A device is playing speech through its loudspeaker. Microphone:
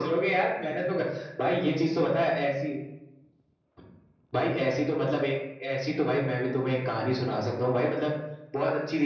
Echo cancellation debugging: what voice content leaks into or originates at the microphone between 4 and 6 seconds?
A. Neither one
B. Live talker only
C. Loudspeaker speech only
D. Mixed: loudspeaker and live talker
C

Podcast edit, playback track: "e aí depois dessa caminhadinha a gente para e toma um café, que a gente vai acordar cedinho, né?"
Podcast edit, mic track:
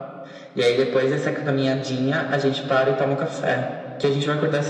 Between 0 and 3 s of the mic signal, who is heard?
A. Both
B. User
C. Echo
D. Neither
C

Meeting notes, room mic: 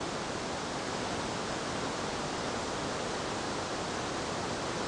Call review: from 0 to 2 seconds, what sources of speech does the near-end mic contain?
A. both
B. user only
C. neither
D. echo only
C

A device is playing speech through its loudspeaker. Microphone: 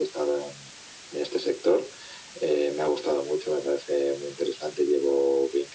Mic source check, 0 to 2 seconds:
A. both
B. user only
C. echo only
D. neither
C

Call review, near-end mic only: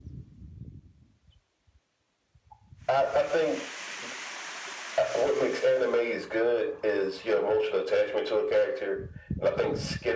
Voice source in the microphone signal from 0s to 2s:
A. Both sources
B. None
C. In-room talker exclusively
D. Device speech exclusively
B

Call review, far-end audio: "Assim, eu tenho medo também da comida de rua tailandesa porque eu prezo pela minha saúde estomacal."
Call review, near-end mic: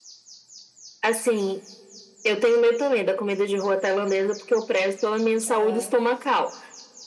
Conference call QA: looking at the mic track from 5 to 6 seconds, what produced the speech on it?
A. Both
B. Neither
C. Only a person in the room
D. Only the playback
A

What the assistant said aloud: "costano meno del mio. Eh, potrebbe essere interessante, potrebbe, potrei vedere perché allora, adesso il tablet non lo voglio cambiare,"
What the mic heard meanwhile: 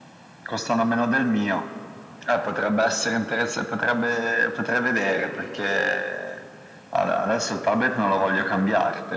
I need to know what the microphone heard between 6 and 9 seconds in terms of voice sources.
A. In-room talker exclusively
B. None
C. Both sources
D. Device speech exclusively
D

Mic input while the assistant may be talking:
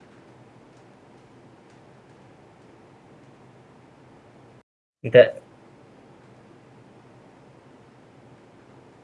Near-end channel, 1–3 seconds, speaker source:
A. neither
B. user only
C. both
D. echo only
A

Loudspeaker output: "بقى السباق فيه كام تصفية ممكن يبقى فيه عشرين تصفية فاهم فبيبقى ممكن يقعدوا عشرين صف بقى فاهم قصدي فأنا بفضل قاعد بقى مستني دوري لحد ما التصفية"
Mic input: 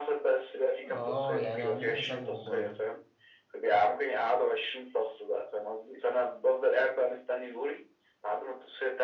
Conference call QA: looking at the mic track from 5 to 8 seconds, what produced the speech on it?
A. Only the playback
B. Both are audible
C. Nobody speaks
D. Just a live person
A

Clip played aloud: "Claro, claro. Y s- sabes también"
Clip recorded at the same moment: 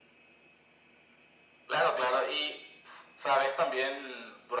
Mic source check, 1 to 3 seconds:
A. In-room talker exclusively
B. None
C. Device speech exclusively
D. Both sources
C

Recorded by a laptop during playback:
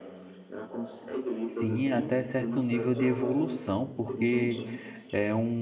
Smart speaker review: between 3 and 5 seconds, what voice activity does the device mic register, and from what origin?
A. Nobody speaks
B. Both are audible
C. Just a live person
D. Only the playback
B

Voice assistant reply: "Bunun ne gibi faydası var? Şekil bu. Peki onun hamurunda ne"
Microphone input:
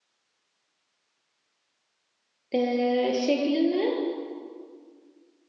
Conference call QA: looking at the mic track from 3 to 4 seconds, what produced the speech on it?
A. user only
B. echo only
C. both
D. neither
A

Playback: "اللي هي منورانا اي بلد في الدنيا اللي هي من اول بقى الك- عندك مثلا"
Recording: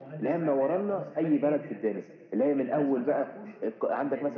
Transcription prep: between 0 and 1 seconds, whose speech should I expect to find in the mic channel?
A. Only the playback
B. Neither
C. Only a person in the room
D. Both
D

